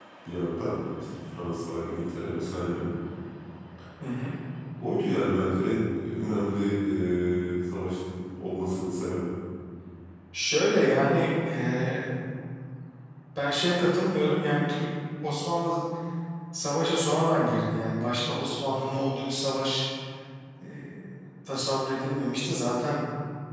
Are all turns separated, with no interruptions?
Yes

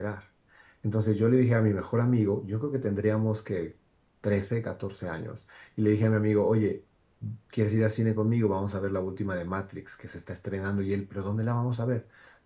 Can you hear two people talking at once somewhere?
No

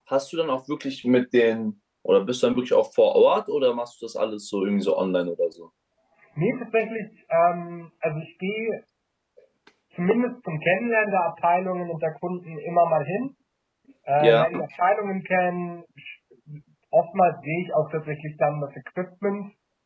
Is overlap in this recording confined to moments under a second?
Yes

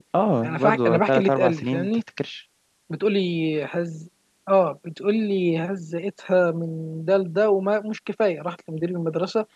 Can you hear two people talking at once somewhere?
Yes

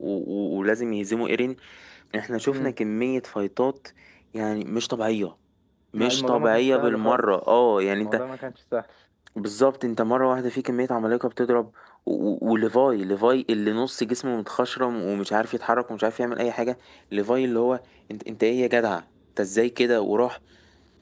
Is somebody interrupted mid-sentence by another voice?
Yes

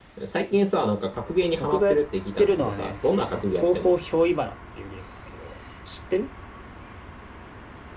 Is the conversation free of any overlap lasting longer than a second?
No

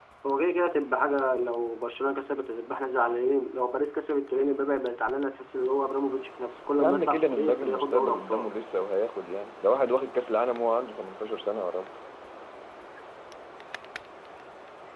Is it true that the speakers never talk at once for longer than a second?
No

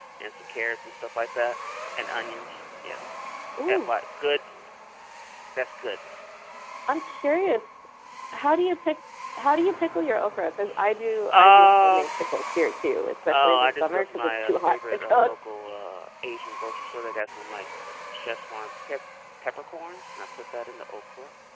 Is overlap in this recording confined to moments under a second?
No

